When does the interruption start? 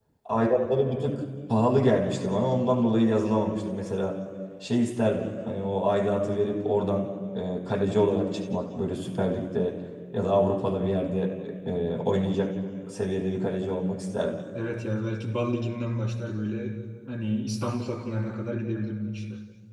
none

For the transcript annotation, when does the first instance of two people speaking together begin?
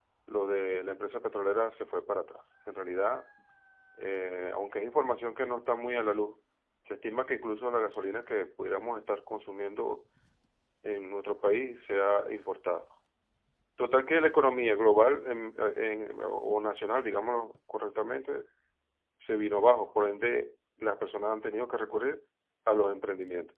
none

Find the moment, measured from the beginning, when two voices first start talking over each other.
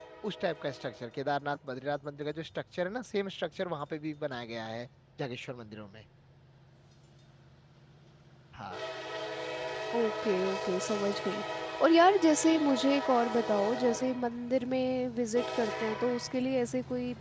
none

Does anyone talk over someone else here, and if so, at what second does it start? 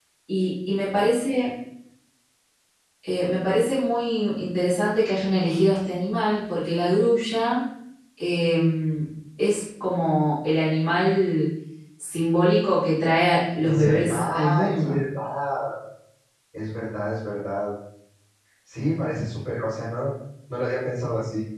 14 s

